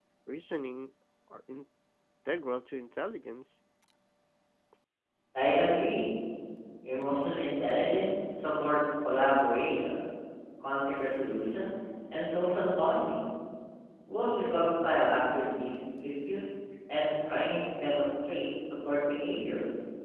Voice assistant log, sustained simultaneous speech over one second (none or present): none